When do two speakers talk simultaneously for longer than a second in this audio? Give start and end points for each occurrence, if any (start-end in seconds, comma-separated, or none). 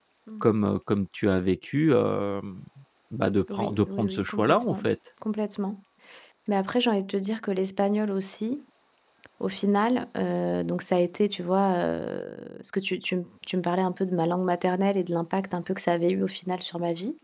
3.5-4.8